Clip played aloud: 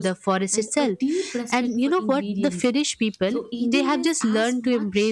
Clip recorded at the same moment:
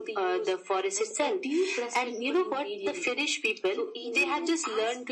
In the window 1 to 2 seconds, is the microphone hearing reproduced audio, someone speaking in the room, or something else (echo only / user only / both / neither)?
echo only